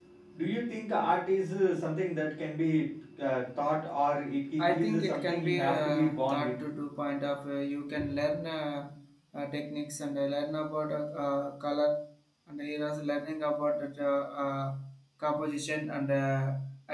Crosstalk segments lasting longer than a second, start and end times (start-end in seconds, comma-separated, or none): 4.6-6.6